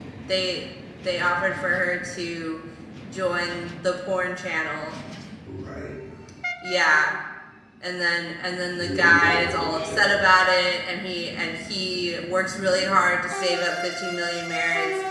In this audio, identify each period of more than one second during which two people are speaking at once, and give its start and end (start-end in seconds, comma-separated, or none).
8.8-10.2